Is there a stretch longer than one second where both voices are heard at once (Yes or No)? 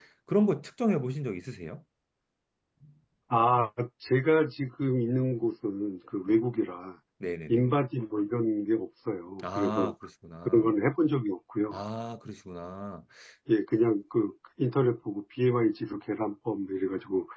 No